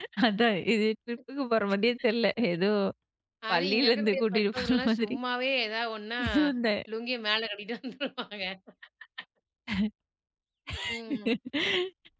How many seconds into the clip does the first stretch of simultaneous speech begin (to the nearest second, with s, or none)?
4 s